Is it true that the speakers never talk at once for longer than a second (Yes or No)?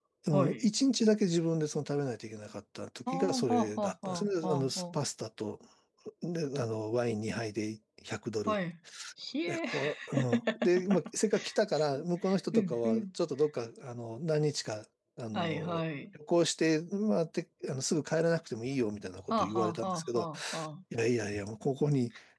No